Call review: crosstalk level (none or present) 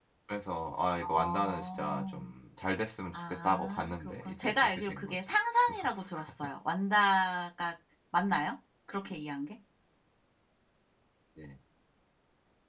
present